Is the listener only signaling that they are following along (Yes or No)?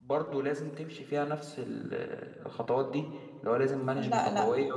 No